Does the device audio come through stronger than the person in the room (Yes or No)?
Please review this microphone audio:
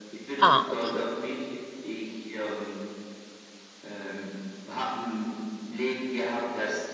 No